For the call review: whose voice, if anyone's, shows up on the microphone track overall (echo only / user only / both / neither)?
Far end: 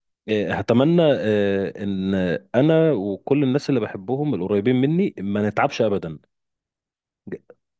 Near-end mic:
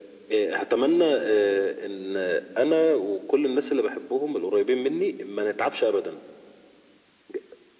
echo only